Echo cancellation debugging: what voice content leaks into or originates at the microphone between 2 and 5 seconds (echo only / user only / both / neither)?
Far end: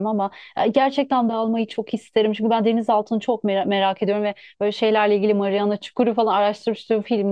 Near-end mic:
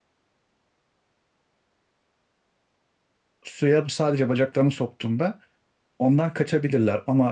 user only